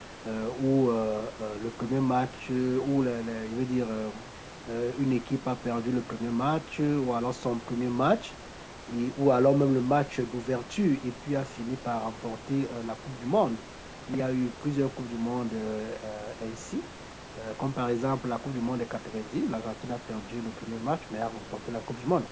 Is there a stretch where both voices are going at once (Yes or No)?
No